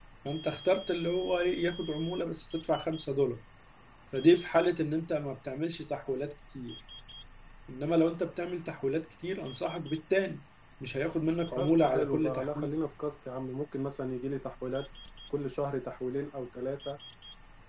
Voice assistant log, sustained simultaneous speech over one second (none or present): present